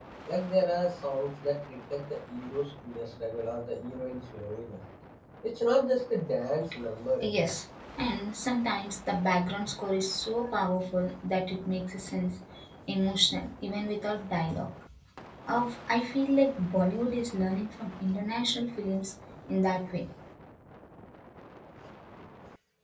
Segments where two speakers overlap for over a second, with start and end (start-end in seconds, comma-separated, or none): none